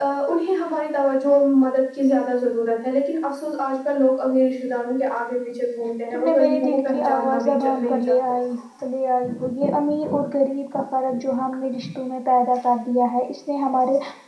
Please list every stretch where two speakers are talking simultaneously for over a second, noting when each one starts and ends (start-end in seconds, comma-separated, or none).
6.1-8.2